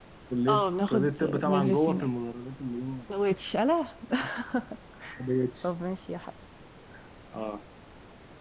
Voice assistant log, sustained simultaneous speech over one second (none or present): present